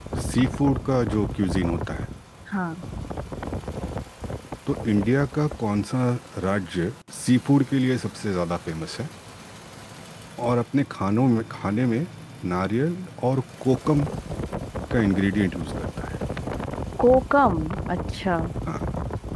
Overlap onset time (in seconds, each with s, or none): none